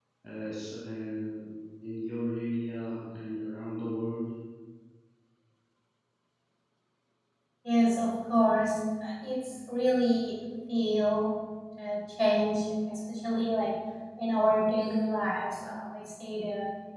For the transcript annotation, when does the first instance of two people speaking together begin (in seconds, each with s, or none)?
none